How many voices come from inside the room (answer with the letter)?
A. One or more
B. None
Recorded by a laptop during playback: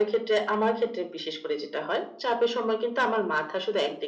B